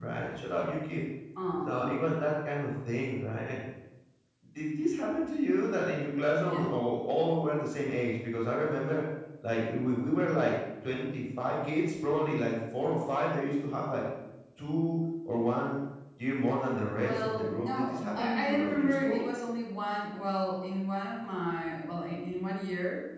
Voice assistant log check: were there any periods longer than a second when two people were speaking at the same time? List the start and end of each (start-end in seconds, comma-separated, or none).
17.0-19.3